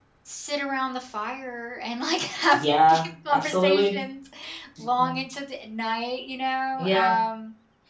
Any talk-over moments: Yes, from 2.5 s

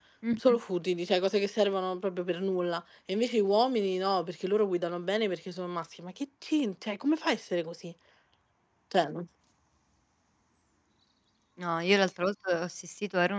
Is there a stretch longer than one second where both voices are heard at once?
No

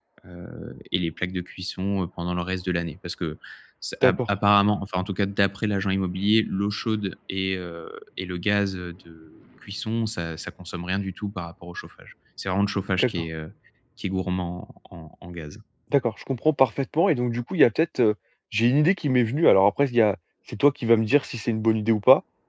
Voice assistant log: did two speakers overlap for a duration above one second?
No

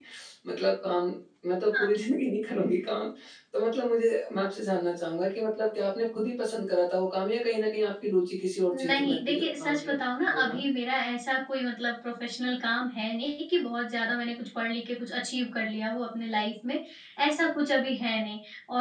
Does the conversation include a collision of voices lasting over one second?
Yes, from 8.7 s

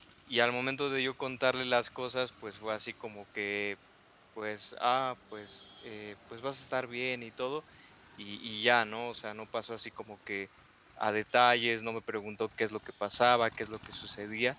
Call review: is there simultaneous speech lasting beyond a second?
No

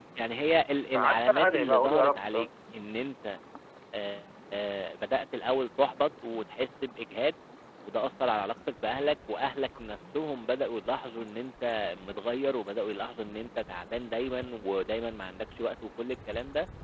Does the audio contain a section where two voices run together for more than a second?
Yes, from 0.9 s

